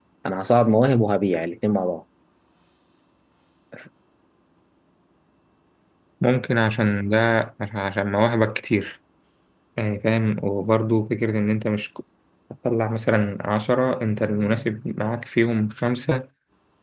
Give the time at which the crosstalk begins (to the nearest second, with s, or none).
none